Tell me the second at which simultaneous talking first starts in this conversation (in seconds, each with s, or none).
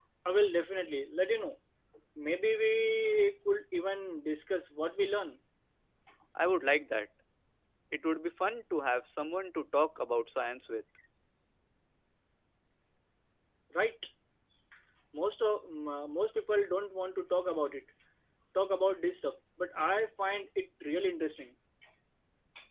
none